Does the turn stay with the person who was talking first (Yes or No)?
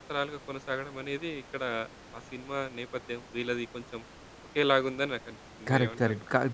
No